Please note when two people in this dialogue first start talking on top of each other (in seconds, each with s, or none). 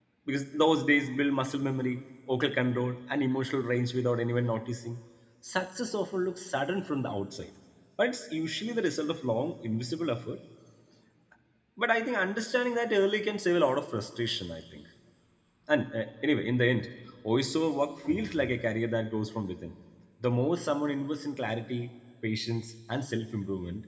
none